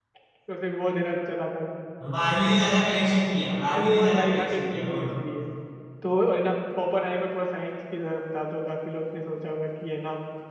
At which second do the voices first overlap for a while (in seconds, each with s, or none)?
3.7 s